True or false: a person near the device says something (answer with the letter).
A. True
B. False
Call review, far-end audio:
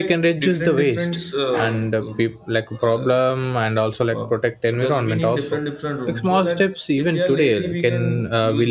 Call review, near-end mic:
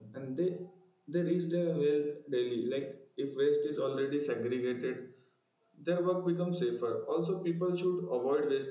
A